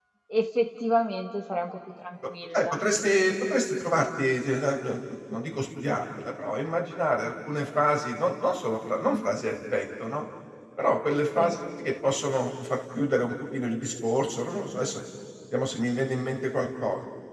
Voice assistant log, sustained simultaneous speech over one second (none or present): none